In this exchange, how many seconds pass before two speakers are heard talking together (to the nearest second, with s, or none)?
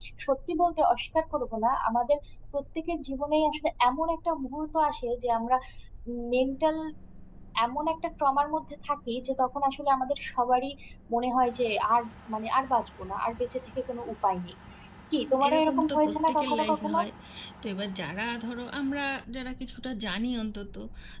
15 s